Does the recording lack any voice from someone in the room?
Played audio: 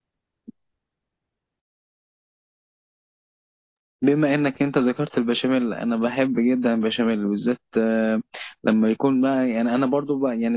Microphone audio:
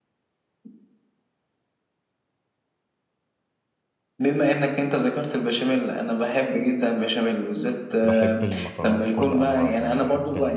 No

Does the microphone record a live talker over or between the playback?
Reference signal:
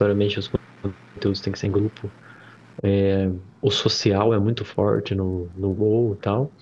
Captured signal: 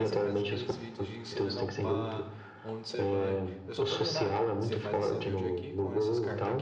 Yes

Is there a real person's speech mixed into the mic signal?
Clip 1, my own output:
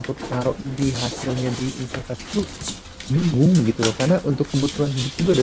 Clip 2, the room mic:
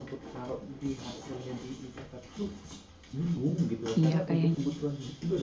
Yes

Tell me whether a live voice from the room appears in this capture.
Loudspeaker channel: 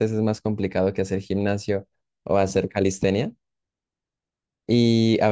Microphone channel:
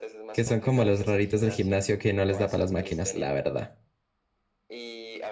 Yes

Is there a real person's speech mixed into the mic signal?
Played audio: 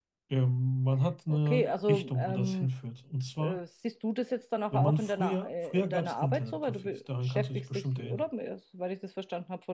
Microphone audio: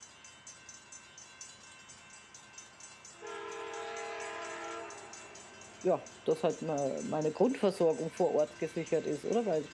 Yes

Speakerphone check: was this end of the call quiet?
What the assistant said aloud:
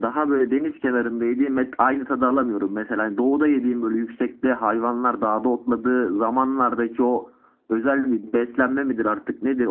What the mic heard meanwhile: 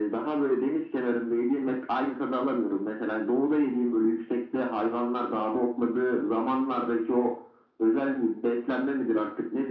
Yes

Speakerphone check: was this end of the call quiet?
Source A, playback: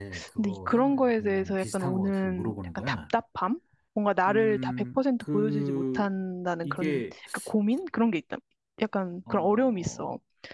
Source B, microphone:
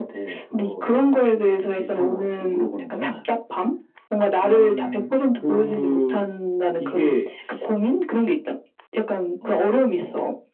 Yes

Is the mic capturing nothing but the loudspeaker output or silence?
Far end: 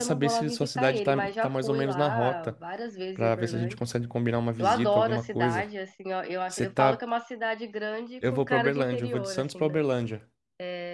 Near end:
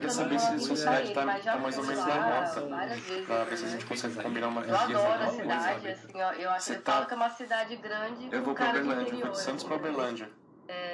No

